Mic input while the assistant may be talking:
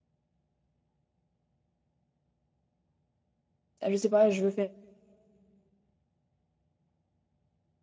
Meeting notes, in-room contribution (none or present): present